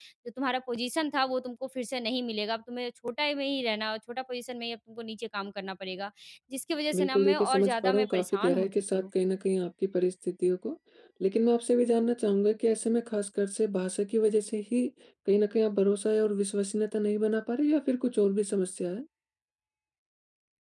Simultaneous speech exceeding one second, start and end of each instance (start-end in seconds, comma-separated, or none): 7.0-9.0